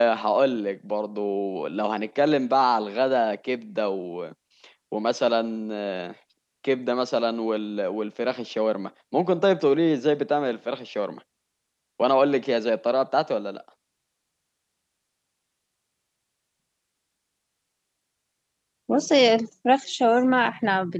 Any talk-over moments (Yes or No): No